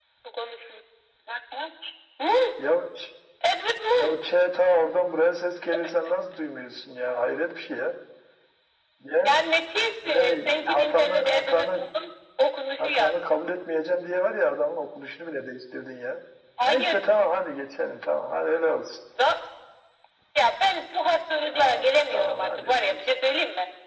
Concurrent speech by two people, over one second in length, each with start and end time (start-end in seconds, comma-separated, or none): 10.1-11.8, 21.5-23.0